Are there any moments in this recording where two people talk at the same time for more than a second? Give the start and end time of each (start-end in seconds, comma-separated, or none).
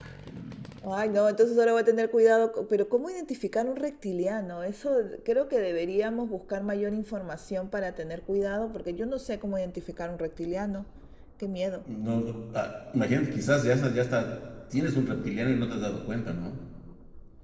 none